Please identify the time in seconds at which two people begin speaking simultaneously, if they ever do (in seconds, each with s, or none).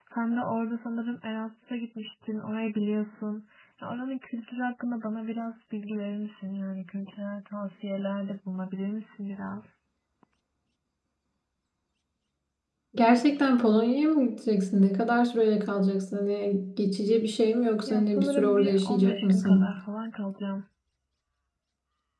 17.9 s